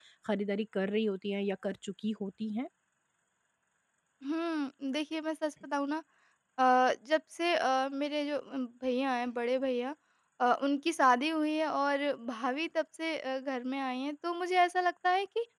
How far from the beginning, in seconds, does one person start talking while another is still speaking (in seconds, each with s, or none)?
none